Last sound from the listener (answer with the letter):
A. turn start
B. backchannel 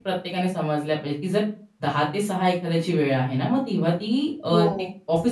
B